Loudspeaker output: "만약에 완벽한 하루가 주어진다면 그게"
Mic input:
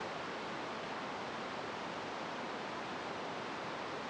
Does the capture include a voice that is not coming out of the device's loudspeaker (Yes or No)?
No